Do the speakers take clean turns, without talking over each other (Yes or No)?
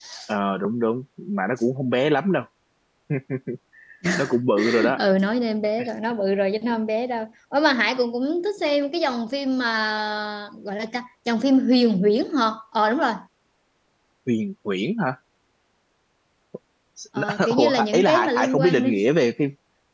No